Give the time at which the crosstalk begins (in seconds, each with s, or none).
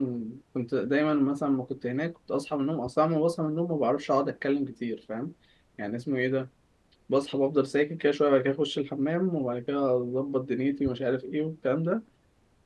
none